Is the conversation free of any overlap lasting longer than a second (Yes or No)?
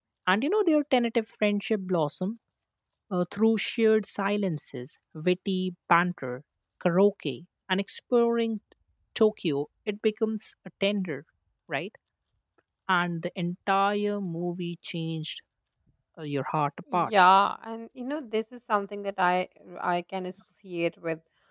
Yes